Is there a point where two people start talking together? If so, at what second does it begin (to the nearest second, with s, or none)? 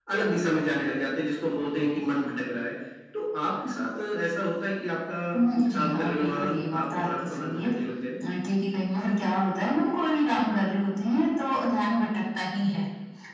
5 s